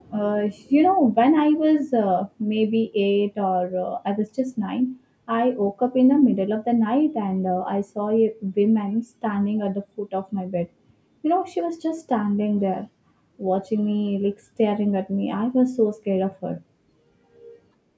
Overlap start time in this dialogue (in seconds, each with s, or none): none